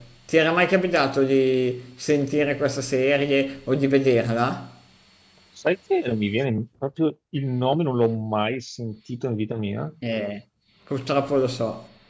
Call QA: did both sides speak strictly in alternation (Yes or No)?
Yes